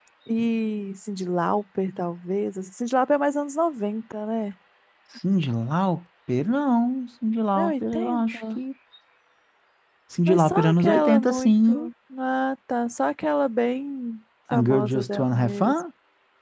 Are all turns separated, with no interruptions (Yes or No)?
No